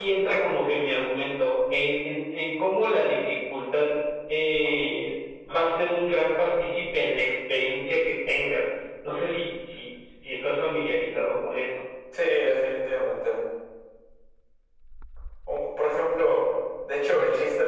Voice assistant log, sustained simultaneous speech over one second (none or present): none